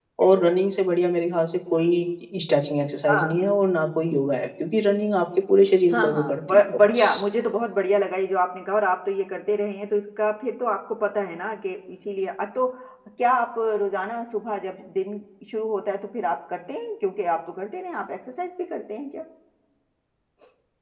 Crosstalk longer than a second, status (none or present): present